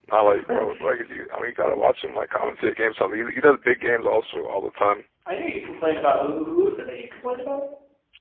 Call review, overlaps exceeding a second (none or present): none